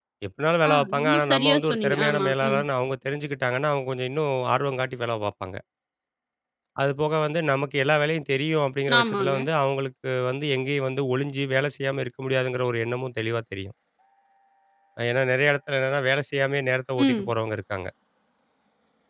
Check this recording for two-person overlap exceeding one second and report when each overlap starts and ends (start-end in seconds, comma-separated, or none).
0.7-2.6